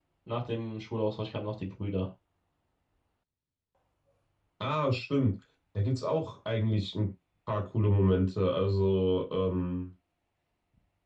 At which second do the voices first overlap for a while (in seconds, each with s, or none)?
none